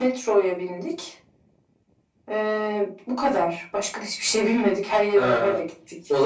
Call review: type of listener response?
taking over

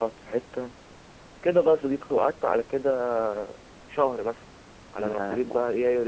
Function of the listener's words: listening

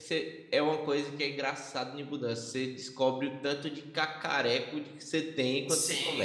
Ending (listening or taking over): taking over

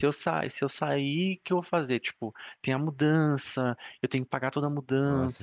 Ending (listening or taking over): taking over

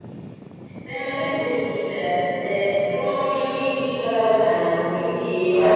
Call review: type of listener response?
listening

